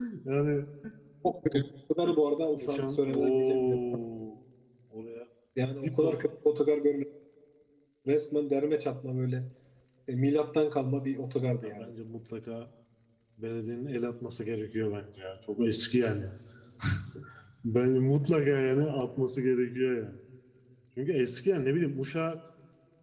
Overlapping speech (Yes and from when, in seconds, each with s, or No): Yes, from 2.5 s